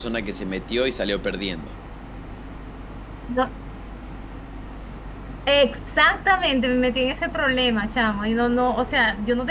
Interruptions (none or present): none